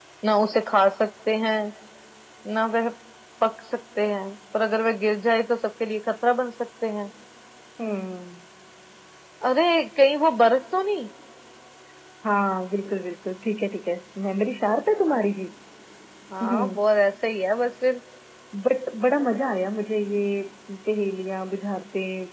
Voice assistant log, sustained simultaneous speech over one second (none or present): none